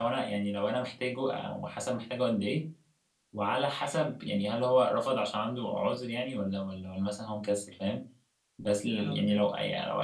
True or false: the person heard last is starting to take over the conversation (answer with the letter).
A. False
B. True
A